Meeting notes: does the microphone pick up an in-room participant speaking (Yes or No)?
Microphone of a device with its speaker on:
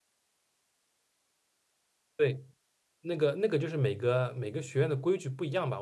Yes